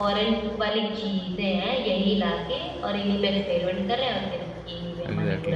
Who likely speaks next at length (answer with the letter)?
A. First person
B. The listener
B